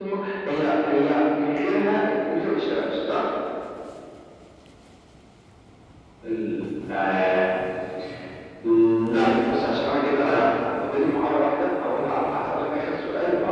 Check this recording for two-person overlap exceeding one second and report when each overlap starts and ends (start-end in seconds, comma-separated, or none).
none